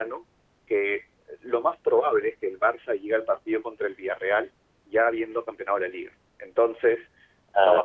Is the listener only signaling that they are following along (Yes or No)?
Yes